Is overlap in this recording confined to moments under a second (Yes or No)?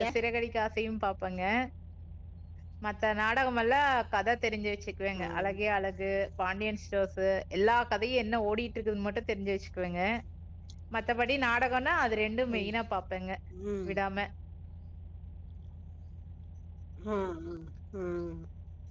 Yes